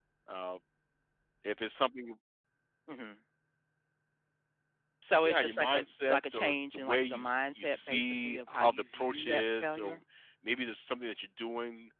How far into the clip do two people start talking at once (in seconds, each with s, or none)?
5.2 s